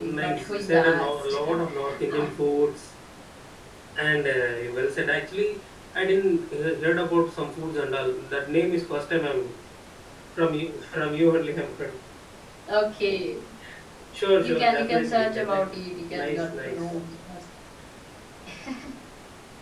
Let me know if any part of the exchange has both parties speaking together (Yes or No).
Yes